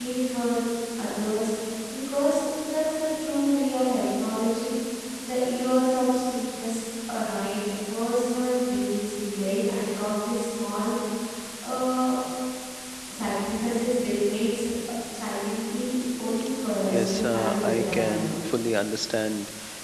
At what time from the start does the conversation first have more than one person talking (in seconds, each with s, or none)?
16.8 s